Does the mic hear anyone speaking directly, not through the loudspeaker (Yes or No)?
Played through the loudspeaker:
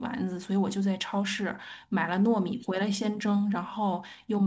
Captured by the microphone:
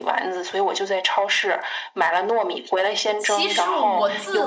Yes